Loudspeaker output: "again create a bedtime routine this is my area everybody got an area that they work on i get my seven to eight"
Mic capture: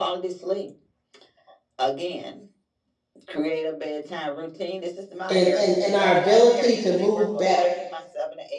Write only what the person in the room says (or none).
and, and, and our ability to move better,